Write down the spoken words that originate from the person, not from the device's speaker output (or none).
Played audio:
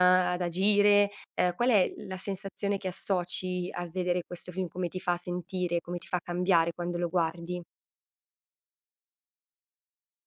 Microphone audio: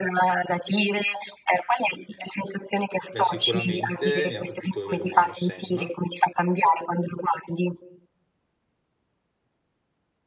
Beh, sicuramente mi ha colpito a livello umano Sam